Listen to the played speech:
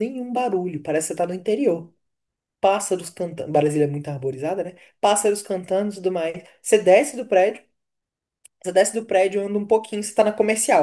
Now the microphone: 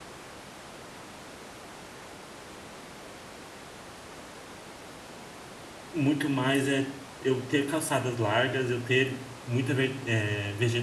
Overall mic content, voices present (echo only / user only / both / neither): user only